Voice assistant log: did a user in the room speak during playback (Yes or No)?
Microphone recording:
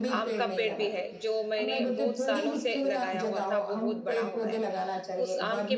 Yes